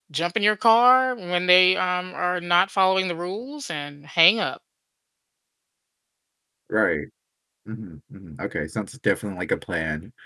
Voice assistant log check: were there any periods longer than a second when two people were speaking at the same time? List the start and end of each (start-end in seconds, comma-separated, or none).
none